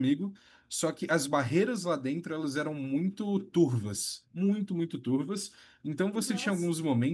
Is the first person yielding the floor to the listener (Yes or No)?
No